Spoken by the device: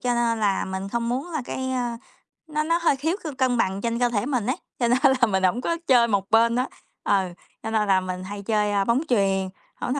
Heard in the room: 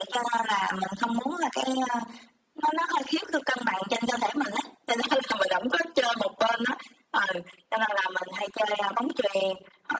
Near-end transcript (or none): none